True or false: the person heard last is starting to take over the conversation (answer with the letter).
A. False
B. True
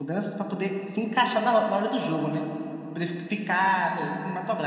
A